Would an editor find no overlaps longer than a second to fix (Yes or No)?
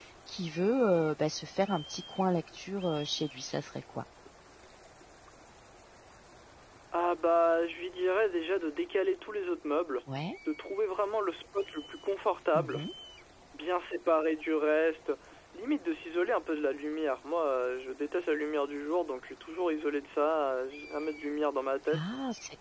Yes